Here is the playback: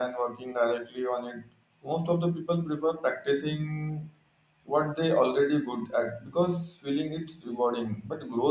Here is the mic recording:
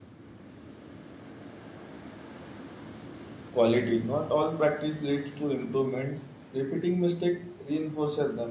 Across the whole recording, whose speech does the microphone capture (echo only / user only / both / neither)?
user only